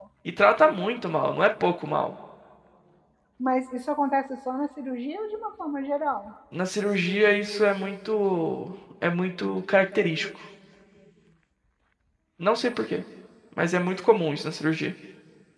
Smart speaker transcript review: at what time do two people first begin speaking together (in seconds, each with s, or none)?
none